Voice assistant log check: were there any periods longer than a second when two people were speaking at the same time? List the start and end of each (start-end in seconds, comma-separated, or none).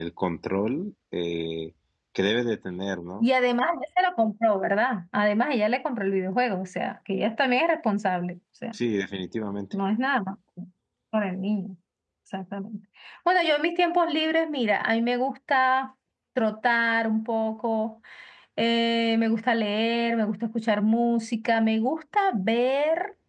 none